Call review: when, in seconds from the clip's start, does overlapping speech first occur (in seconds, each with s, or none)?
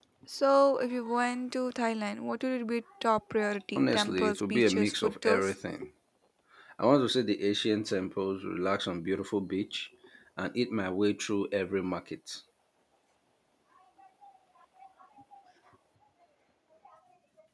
3.8 s